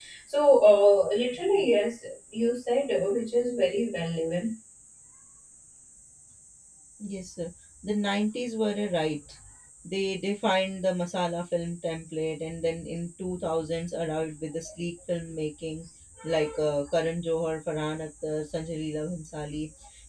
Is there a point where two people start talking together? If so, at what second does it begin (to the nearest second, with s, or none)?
none